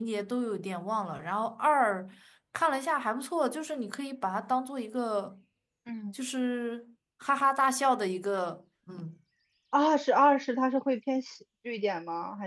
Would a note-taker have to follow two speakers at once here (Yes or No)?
No